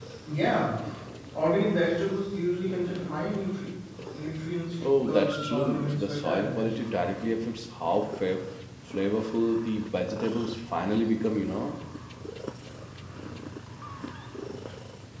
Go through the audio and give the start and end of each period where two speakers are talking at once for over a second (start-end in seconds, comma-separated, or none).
4.9-7.0